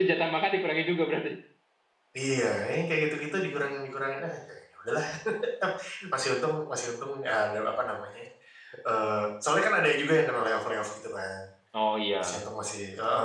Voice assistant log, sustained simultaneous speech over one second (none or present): none